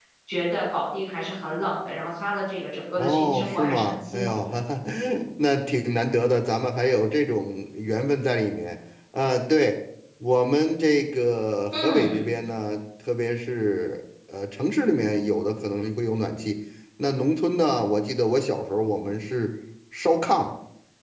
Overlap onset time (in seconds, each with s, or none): 3.0 s